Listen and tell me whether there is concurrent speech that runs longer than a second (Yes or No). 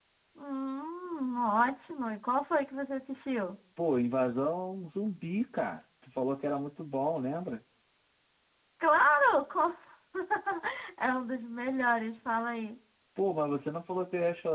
No